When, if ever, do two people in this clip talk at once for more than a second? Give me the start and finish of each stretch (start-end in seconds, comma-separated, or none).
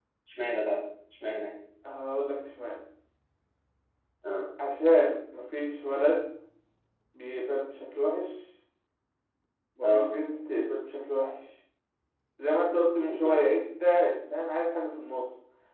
none